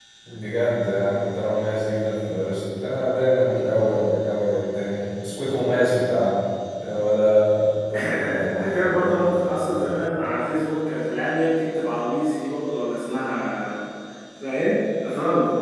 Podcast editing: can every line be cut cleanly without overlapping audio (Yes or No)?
No